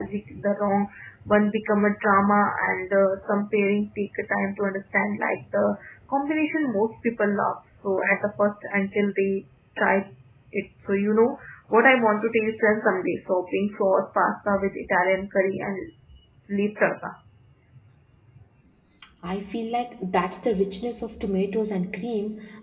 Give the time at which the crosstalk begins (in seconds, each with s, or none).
none